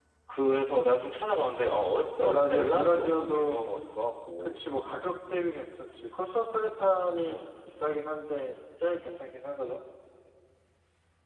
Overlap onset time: 2.2 s

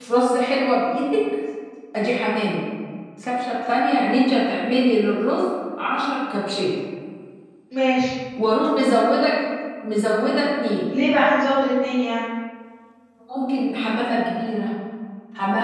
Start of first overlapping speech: none

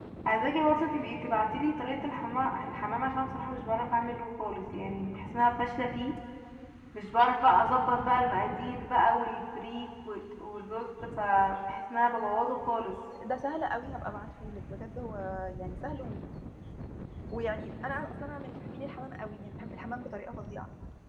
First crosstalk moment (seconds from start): none

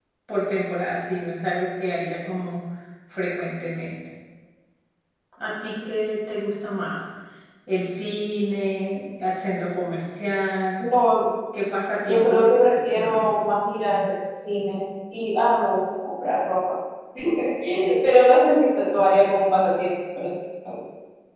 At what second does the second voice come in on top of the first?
12.1 s

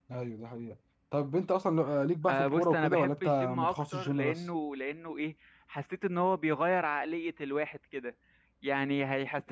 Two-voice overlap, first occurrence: 2.3 s

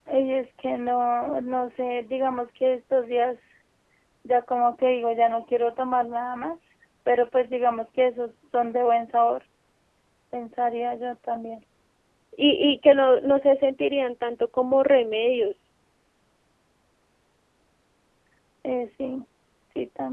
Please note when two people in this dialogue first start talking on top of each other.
none

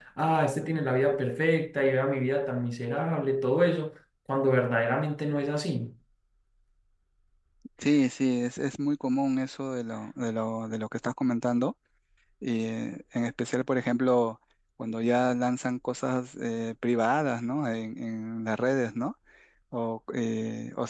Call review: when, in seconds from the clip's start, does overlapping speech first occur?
none

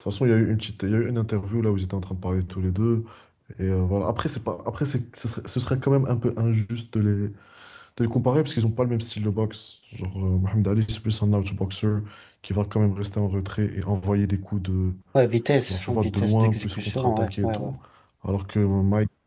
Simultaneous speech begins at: 15.7 s

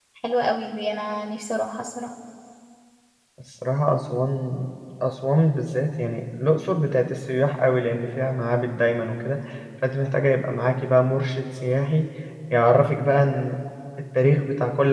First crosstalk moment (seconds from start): none

